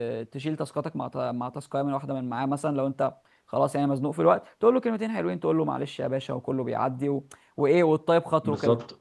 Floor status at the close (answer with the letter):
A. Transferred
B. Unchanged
A